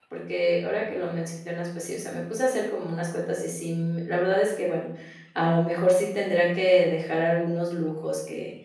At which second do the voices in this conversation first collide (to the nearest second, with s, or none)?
none